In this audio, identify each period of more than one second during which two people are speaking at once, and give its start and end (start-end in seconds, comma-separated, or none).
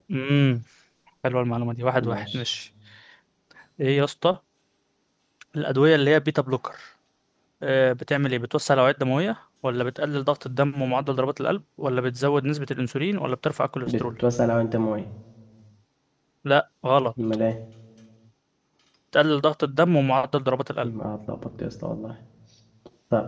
none